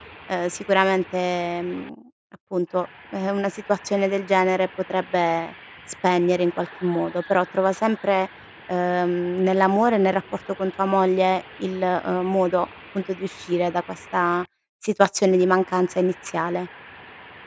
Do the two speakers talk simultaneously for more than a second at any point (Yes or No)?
No